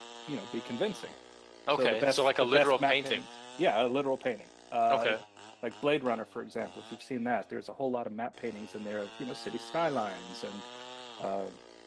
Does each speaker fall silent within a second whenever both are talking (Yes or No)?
No